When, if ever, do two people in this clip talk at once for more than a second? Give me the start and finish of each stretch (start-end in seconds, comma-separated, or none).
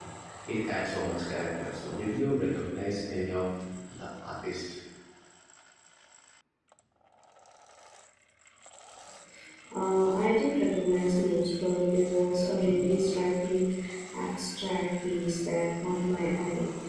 none